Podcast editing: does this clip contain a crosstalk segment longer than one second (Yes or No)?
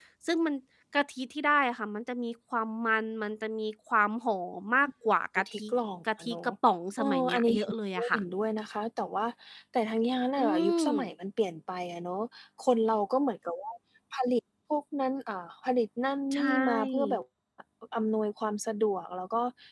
Yes